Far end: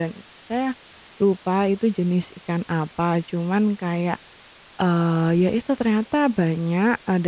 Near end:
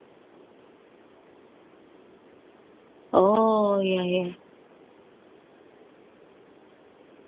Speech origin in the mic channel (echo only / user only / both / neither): user only